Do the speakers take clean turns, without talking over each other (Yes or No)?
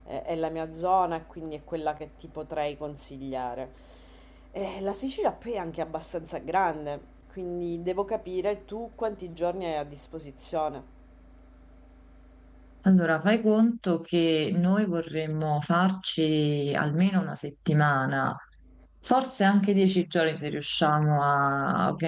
Yes